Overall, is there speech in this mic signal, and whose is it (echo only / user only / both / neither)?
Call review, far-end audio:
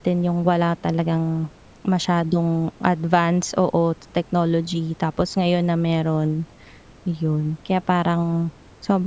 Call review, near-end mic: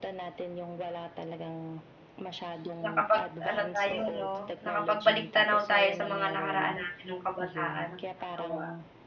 both